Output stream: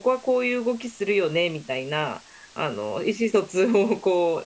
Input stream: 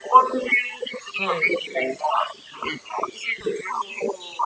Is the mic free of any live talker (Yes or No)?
No